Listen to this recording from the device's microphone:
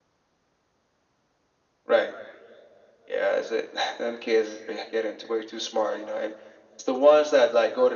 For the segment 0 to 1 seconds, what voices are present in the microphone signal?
neither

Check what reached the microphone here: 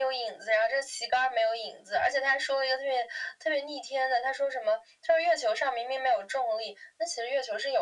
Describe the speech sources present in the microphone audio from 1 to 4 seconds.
echo only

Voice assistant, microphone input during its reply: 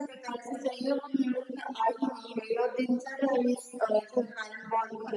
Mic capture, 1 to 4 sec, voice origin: echo only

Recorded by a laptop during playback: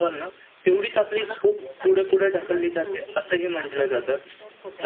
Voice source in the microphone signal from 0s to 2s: both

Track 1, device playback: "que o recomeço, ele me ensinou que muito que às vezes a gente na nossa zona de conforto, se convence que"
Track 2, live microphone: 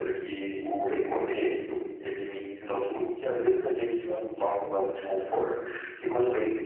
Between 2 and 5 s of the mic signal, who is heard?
echo only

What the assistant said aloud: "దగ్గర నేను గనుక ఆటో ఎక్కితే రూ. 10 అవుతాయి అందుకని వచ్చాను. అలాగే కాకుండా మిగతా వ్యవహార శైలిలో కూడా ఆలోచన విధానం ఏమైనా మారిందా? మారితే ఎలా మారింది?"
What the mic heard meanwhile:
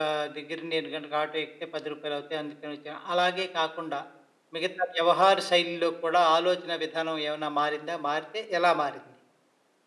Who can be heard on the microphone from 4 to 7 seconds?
echo only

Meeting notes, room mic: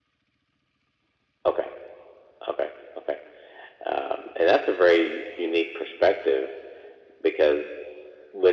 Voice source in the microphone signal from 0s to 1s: neither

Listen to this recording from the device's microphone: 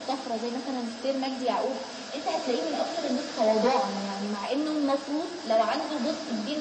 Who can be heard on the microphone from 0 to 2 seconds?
echo only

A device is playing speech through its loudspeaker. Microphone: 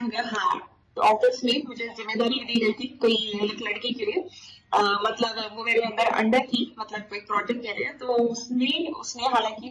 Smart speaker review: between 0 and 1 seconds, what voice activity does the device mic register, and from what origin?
echo only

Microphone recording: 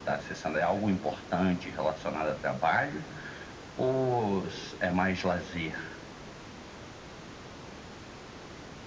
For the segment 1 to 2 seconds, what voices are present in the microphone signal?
echo only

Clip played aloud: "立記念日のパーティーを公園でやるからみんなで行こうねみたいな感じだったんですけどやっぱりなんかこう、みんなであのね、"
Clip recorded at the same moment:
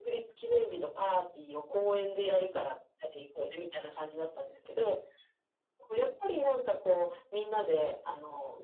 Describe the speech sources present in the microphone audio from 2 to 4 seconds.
echo only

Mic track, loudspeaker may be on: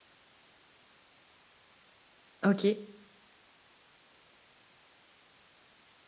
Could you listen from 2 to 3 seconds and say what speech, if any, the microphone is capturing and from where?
user only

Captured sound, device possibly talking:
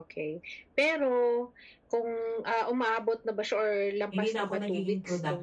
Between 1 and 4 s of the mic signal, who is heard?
echo only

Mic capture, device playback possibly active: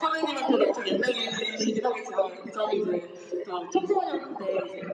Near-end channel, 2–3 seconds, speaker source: echo only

